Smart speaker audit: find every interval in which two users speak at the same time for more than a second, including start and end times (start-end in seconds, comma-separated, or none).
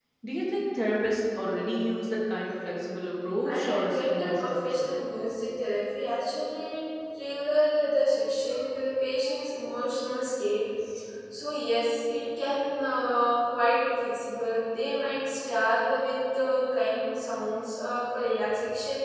3.4-4.9